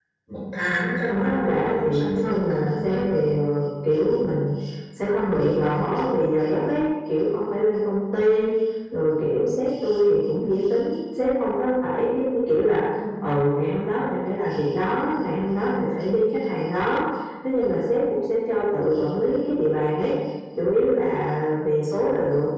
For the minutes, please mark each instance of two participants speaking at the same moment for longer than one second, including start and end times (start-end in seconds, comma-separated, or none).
1.1-3.0